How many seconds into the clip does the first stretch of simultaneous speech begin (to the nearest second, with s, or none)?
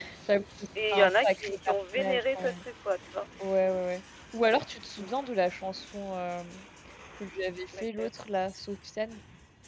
1 s